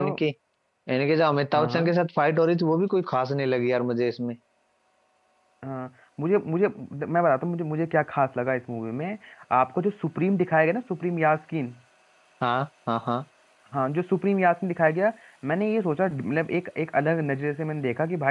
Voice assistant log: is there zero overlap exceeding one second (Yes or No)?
Yes